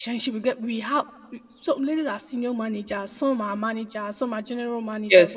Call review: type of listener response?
listening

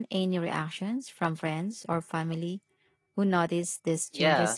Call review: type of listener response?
taking over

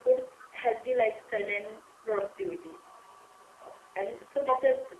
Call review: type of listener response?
listening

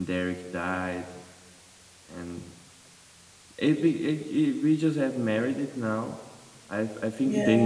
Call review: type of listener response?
listening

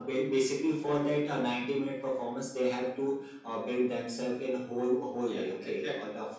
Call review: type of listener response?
listening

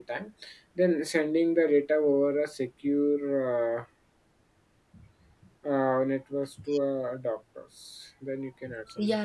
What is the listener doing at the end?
taking over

